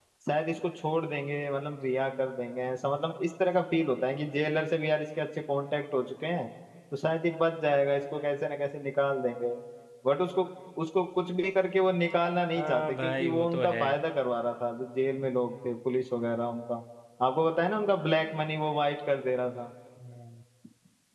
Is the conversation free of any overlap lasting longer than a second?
No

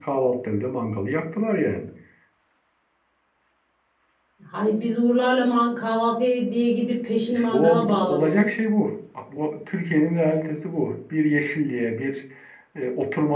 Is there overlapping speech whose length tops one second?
Yes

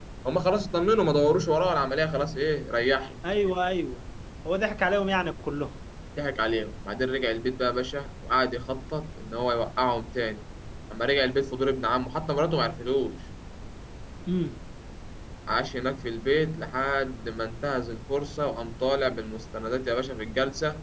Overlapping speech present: No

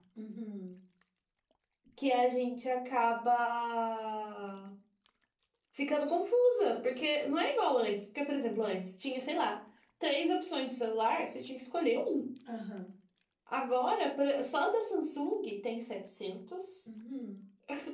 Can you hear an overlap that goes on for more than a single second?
No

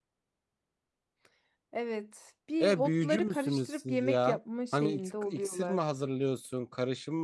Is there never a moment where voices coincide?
No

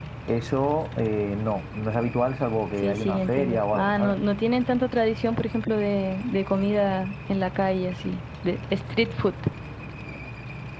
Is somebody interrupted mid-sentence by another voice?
Yes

